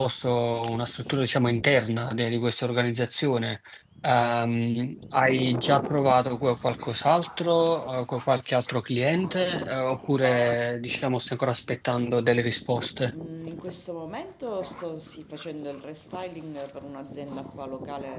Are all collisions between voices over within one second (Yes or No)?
Yes